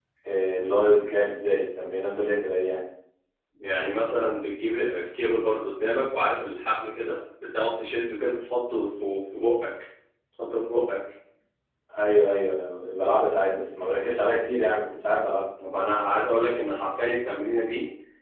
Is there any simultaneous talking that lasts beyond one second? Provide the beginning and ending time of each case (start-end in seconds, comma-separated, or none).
none